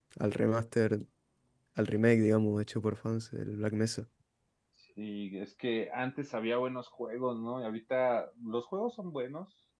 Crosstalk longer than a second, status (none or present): none